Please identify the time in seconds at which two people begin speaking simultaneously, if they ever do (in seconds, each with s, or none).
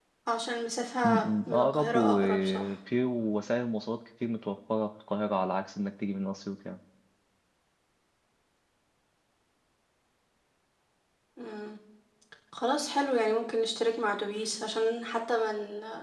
1.0 s